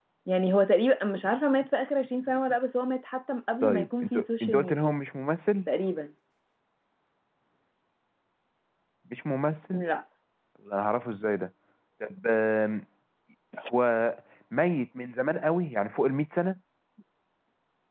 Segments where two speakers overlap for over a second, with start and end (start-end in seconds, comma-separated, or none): 3.6-4.9